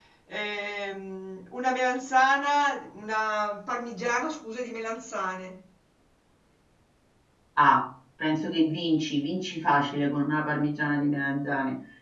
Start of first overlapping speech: none

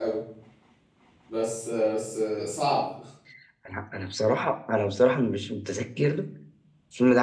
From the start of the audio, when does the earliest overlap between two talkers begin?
none

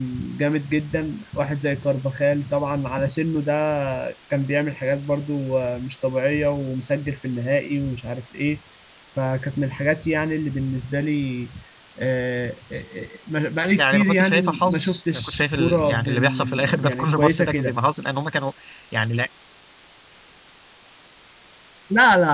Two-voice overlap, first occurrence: 13.8 s

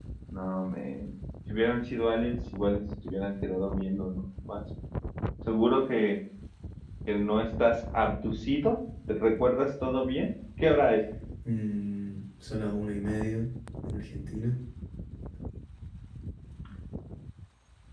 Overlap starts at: none

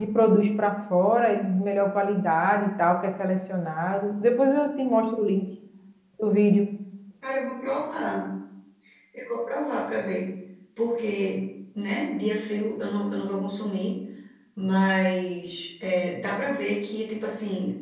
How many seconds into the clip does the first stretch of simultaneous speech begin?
none

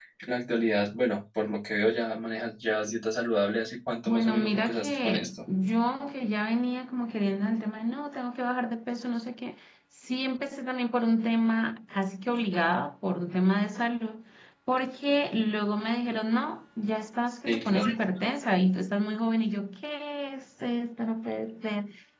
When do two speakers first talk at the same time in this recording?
4.1 s

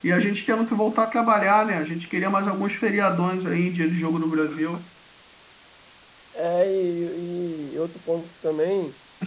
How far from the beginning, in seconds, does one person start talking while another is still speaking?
none

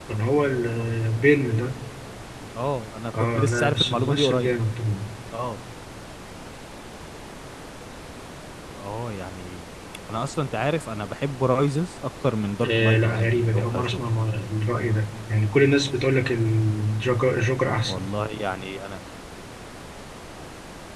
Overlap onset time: 3.2 s

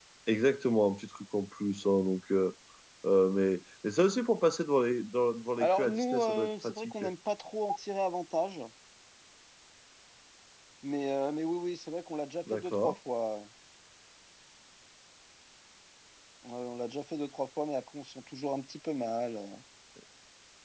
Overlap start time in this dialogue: 5.6 s

